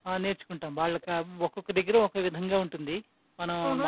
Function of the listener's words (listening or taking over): taking over